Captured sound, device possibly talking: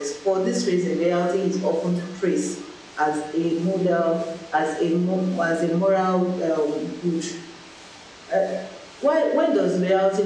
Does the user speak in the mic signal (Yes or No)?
No